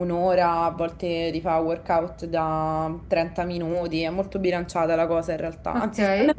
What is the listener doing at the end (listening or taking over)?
listening